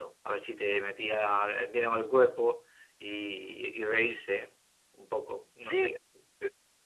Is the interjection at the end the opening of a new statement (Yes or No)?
Yes